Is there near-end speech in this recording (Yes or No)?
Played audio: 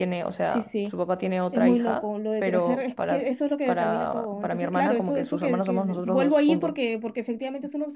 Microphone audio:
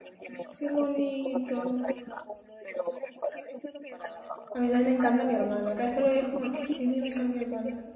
Yes